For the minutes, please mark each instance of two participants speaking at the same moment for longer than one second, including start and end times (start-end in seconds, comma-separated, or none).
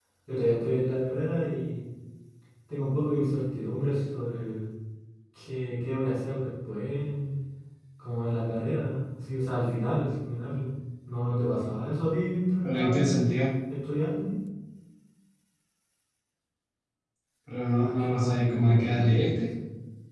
17.8-19.2